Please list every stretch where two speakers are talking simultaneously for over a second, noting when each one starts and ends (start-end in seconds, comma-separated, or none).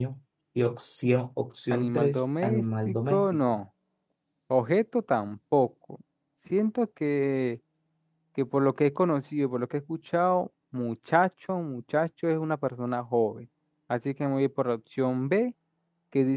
1.7-3.6